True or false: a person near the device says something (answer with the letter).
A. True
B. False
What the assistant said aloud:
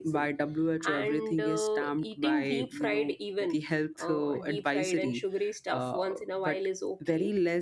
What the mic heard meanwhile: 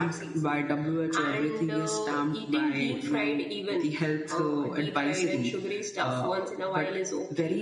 B